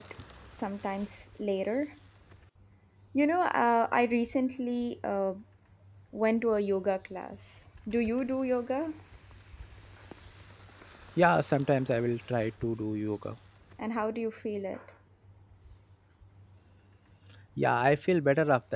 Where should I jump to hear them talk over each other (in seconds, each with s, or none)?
none